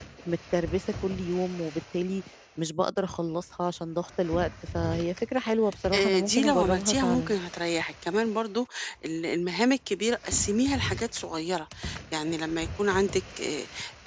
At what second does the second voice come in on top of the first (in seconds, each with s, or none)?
5.9 s